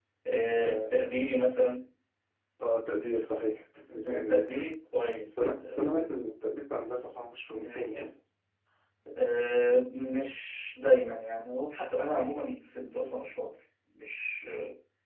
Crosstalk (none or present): present